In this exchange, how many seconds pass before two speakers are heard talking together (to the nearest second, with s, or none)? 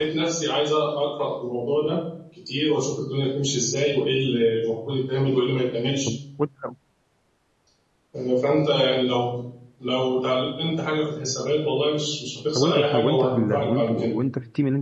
13 s